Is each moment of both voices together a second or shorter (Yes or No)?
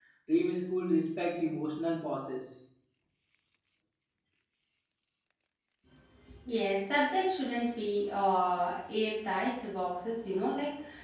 Yes